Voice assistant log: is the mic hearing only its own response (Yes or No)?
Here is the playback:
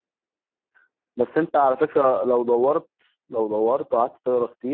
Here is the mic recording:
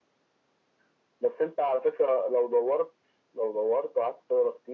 Yes